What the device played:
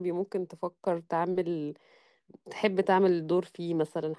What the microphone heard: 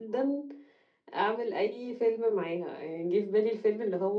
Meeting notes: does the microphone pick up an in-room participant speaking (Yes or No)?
Yes